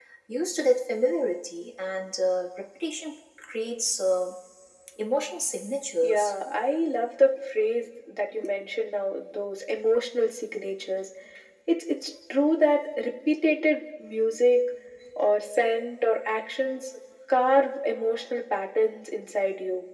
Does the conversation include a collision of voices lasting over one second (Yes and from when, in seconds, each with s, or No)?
No